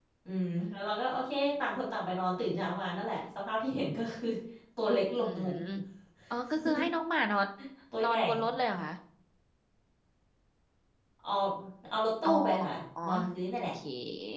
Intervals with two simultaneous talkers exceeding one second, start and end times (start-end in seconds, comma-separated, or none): none